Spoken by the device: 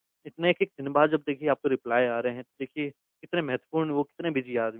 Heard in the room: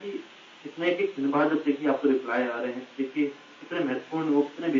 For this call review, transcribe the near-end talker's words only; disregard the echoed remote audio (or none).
none